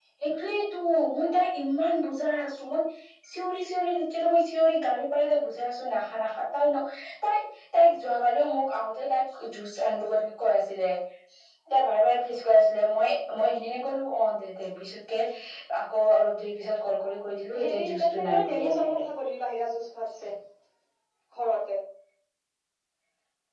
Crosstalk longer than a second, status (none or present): present